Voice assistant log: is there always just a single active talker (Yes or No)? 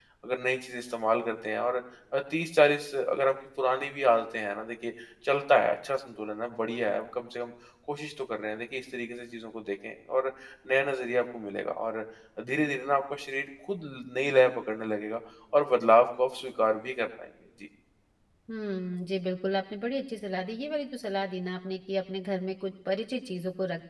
Yes